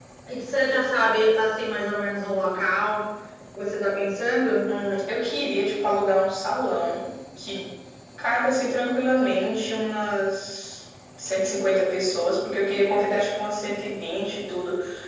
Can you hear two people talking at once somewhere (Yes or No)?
No